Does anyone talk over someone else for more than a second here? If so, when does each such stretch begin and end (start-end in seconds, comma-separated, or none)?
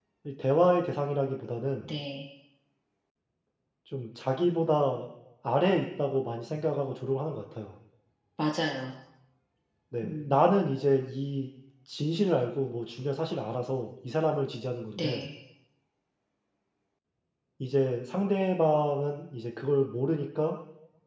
none